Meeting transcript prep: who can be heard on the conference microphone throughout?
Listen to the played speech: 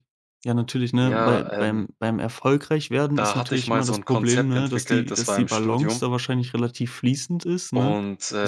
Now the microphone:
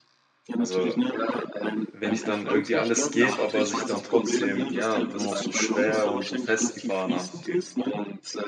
both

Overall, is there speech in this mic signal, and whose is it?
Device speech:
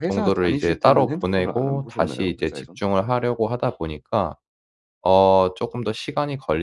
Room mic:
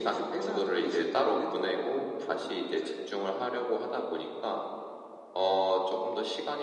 echo only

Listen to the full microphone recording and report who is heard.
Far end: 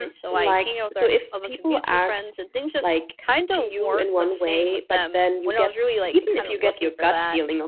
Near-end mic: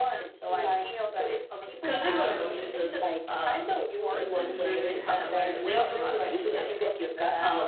both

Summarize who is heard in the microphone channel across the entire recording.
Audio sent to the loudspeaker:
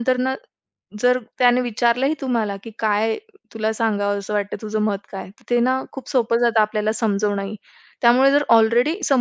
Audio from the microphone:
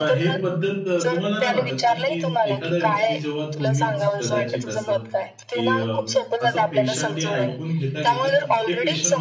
both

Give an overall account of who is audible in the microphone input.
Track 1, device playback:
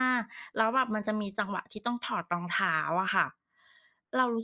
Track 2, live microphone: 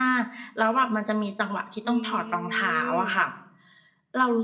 both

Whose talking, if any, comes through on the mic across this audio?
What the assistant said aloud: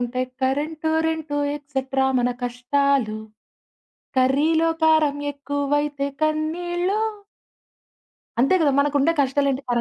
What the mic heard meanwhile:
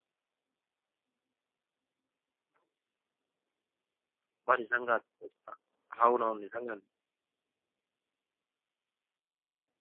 user only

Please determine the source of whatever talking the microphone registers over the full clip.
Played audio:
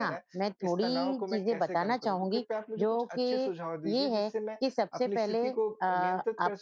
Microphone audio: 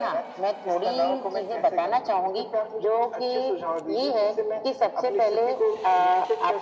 echo only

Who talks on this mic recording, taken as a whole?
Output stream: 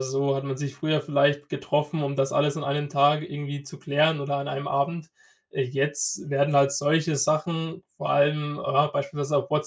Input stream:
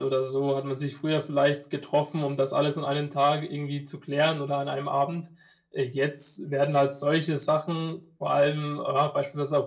echo only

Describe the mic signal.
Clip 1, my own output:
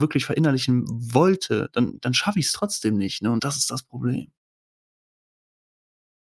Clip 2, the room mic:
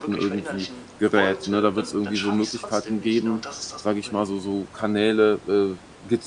both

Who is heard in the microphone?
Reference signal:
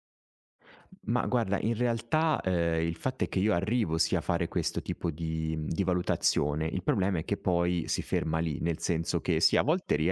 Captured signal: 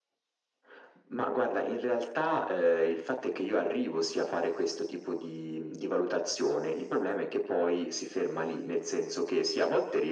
echo only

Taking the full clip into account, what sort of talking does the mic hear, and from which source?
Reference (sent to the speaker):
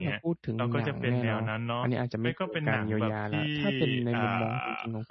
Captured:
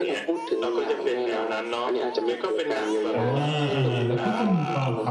both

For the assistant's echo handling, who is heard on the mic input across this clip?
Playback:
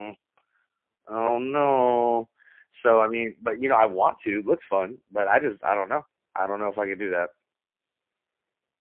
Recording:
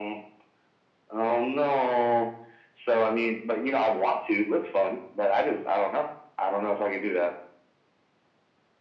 echo only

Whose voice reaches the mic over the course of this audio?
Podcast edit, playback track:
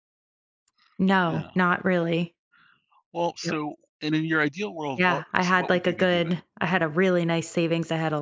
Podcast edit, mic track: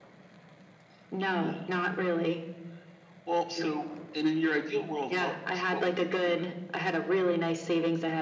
echo only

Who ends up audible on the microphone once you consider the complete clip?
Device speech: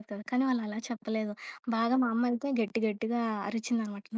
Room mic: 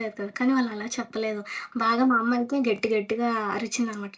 echo only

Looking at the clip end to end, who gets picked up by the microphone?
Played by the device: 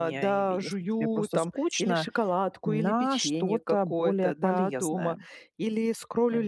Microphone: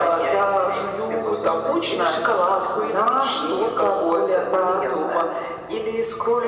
echo only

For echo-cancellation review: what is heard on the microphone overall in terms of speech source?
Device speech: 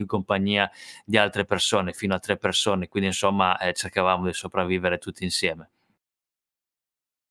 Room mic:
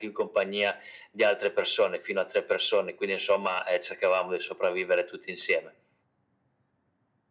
echo only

